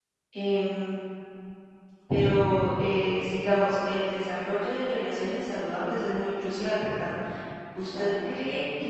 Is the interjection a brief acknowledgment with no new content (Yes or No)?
Yes